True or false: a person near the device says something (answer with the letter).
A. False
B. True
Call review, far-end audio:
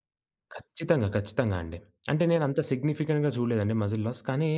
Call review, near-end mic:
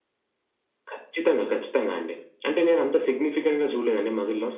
A